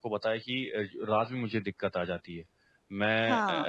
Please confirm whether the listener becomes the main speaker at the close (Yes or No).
No